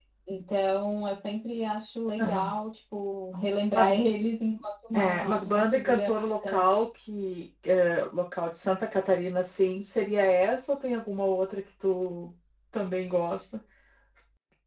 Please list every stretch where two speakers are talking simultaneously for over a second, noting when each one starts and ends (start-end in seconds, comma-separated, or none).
4.9-6.8